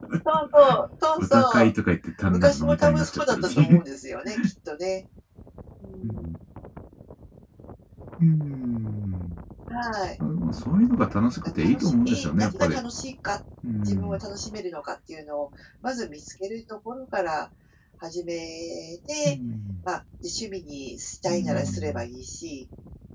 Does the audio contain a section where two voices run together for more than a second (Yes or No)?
Yes